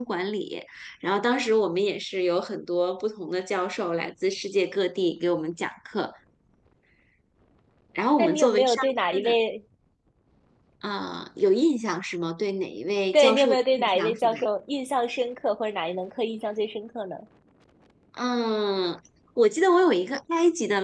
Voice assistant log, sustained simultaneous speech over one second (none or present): present